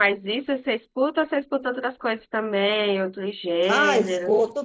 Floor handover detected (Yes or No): Yes